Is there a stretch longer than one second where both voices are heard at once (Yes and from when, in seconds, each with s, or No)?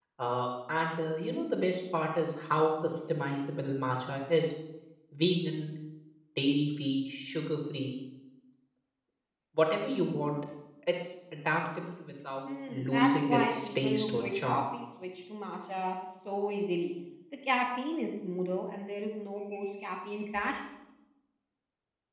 Yes, from 12.5 s